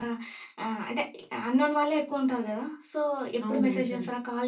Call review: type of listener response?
listening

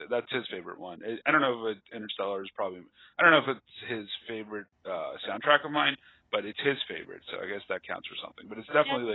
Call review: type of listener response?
listening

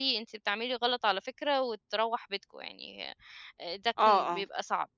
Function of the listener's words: taking over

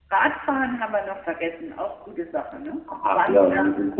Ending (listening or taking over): taking over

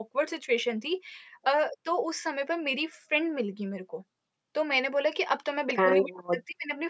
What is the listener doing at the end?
listening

